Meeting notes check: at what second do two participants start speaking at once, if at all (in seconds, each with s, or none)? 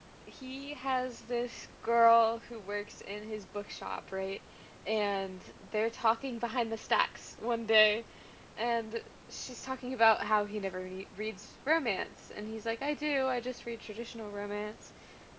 none